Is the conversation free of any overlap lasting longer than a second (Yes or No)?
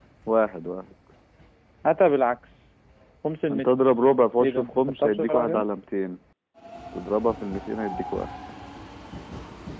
No